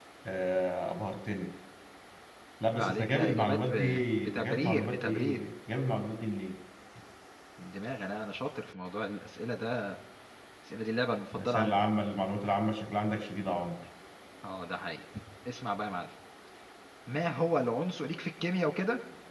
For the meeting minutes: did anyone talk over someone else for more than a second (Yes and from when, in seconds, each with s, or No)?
Yes, from 2.7 s